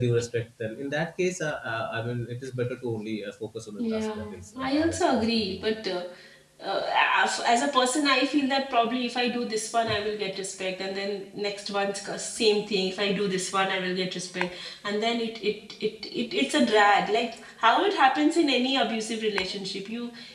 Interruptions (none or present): present